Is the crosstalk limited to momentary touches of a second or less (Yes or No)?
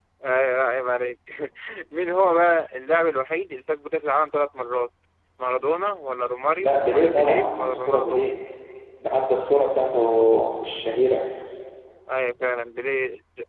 No